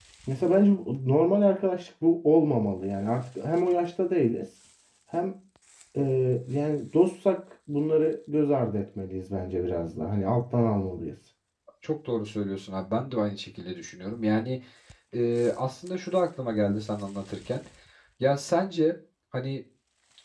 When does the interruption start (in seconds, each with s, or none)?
none